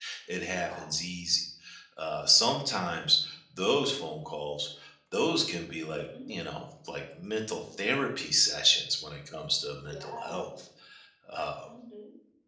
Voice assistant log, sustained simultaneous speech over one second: none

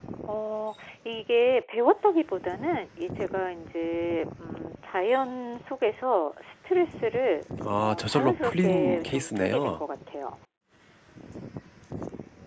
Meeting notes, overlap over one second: present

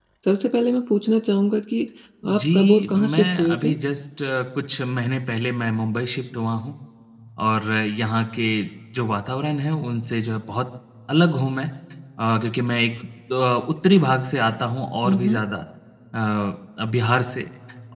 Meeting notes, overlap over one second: present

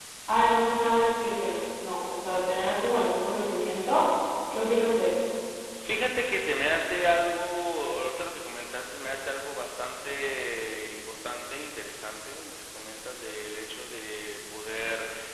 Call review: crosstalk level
none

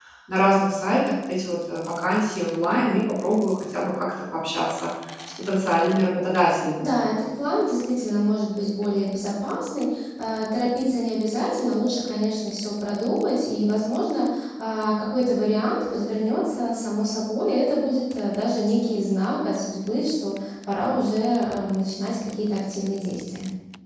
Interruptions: none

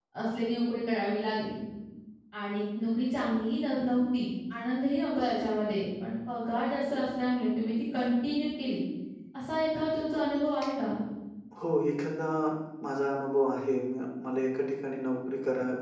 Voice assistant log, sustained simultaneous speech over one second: none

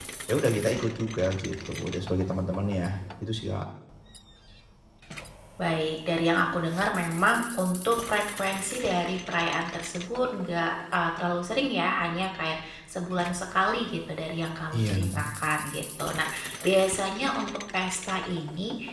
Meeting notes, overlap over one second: none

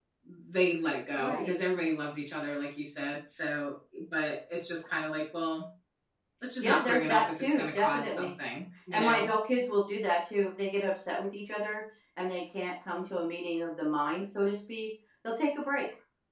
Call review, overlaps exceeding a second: present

